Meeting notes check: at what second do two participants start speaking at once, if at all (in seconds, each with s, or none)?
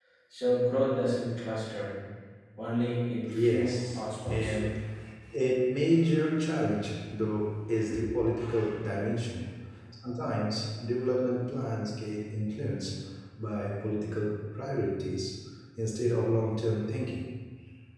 3.2 s